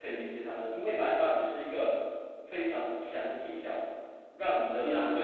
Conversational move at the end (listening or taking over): taking over